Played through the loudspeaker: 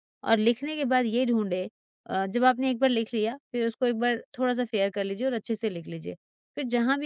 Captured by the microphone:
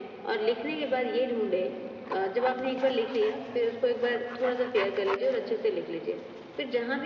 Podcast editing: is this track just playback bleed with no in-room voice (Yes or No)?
Yes